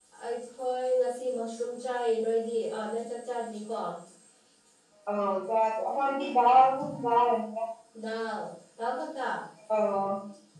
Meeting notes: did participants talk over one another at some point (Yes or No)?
No